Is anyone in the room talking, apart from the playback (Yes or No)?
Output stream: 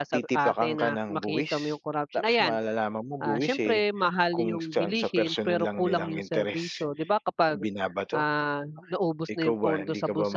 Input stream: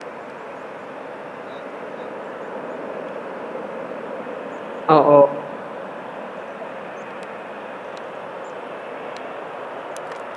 Yes